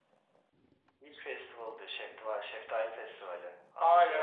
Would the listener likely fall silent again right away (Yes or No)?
No